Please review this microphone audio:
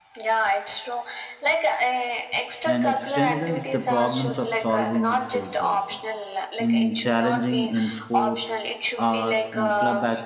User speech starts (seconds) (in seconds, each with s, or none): 2.7 s